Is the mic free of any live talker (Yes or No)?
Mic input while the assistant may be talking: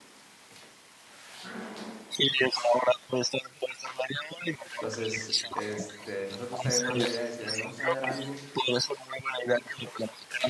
No